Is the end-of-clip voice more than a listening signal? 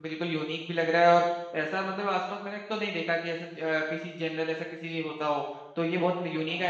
No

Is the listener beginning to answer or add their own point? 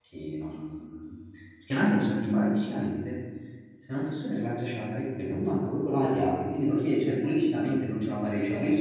Yes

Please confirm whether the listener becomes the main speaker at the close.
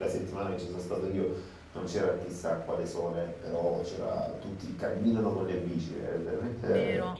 Yes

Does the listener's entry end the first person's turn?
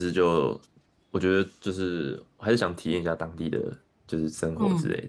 Yes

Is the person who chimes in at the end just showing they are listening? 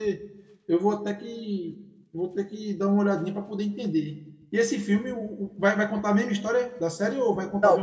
No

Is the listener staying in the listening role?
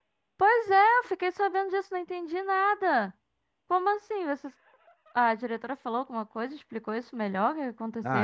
No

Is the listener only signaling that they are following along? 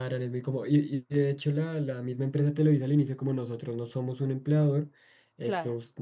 Yes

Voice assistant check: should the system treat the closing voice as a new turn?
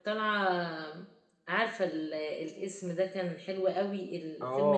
Yes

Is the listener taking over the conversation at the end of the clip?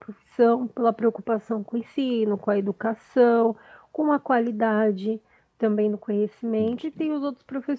No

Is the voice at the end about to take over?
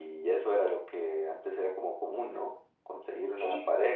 No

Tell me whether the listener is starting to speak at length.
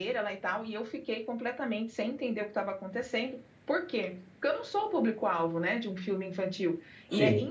No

